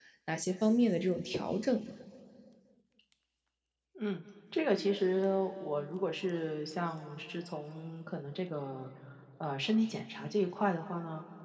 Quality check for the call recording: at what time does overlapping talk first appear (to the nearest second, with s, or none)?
none